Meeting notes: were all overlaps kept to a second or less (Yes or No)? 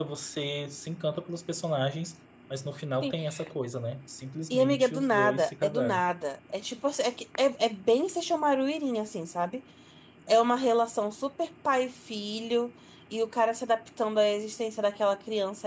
No